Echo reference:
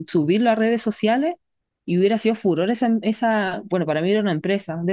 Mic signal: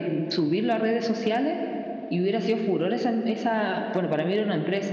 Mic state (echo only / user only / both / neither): echo only